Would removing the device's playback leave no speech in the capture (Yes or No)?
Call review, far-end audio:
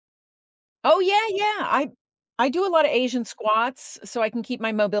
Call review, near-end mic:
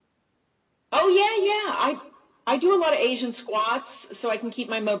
Yes